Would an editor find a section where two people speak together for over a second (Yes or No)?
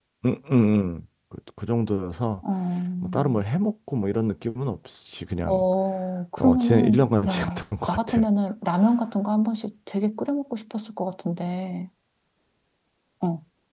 Yes